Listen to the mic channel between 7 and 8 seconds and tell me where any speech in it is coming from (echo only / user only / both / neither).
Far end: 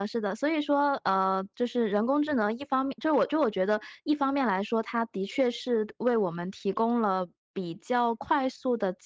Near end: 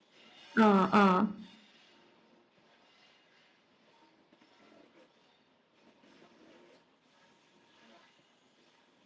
neither